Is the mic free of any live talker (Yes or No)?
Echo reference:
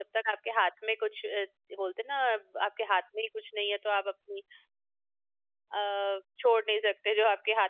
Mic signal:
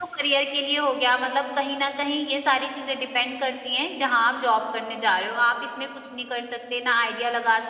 No